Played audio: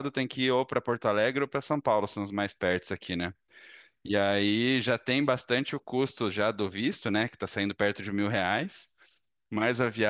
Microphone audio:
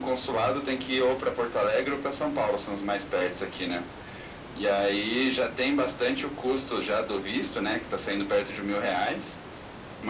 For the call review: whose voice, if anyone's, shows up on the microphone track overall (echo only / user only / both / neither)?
echo only